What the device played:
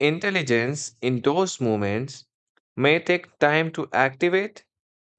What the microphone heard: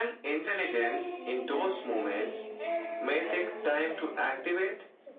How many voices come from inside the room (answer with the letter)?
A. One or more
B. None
A